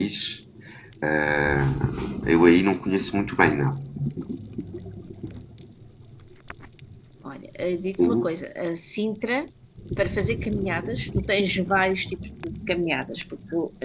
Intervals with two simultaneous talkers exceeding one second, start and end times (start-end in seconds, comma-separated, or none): none